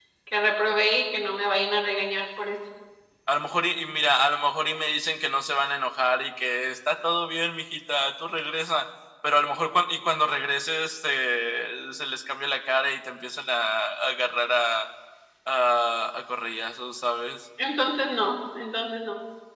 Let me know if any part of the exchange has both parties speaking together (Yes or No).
No